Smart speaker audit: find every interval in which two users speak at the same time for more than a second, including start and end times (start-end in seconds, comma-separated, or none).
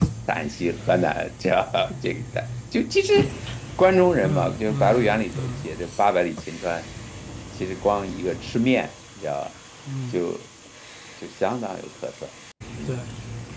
4.2-5.7